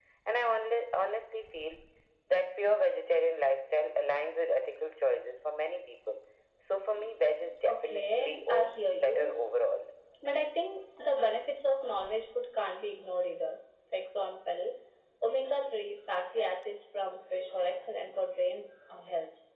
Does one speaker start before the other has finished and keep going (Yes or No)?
Yes